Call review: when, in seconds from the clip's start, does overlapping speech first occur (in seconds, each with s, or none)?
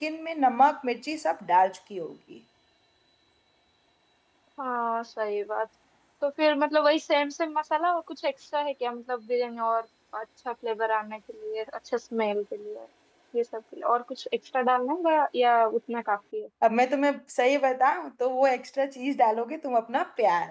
none